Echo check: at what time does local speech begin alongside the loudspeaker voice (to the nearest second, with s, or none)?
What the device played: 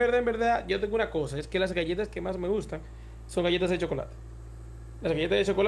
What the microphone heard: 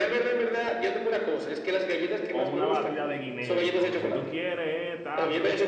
2 s